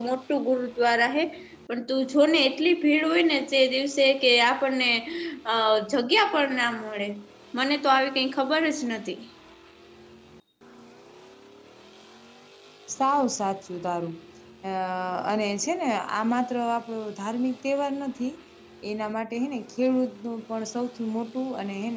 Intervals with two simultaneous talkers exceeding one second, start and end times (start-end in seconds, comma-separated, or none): none